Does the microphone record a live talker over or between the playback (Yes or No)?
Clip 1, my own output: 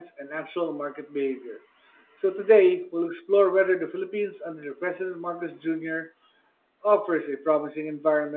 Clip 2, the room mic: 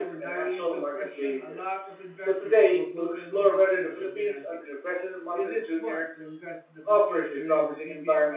Yes